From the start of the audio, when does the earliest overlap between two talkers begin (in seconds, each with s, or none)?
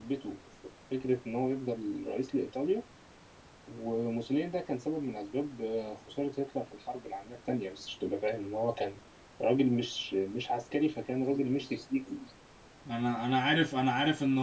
none